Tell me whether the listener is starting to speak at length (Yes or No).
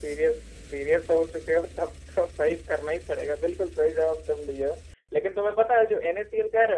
No